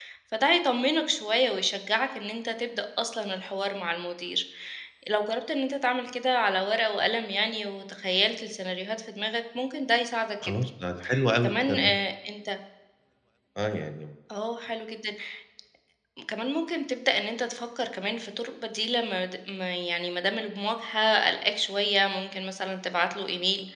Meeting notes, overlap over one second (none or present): none